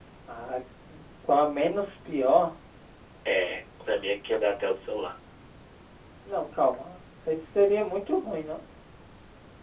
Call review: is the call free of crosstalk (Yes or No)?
Yes